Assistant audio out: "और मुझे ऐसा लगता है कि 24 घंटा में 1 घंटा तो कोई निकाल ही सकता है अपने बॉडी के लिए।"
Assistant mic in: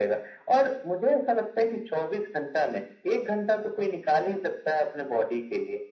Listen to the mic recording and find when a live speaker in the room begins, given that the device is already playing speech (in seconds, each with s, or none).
none